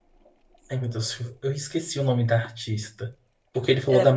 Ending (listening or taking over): listening